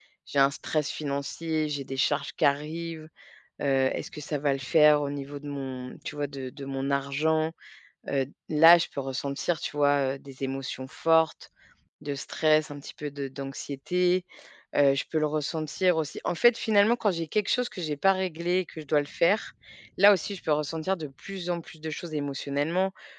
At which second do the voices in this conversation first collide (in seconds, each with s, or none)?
none